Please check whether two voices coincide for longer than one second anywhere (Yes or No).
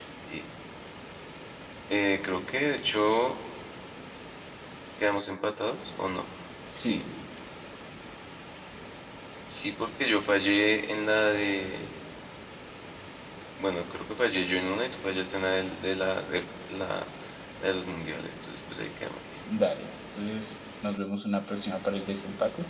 No